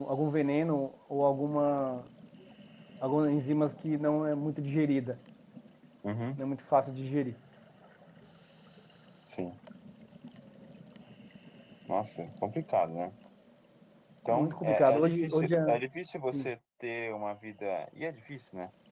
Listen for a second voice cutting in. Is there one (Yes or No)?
Yes